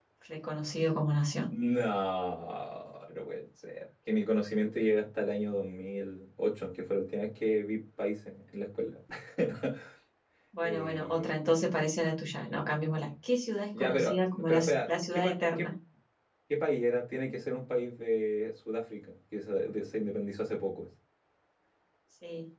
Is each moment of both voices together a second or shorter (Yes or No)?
No